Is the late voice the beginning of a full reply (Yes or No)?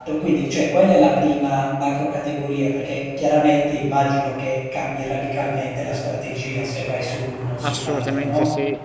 Yes